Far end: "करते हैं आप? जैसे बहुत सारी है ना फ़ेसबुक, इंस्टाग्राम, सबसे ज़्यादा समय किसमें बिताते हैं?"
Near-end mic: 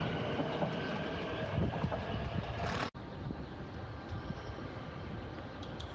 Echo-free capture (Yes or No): Yes